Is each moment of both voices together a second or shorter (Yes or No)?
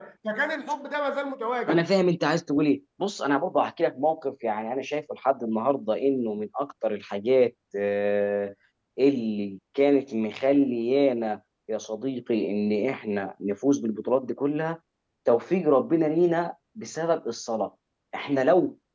Yes